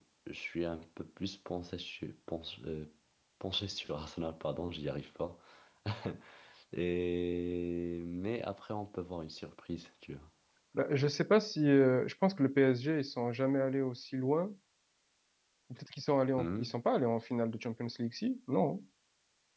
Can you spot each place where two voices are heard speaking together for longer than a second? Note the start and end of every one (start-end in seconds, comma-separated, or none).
none